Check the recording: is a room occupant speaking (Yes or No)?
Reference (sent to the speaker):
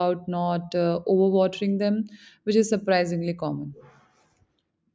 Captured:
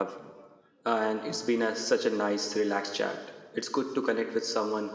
Yes